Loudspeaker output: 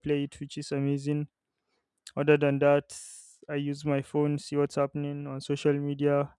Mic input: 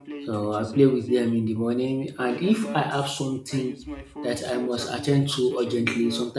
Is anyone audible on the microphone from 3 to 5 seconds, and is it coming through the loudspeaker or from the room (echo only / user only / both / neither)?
both